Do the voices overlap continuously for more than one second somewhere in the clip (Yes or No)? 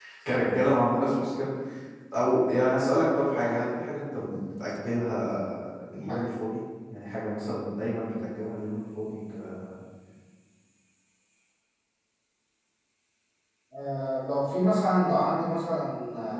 No